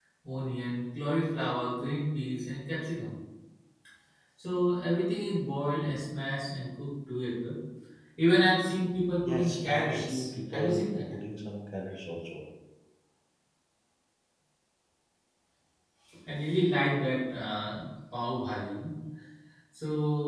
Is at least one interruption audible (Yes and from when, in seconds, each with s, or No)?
Yes, from 9.2 s